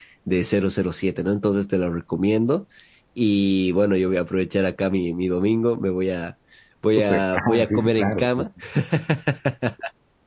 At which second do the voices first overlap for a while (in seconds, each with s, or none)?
6.9 s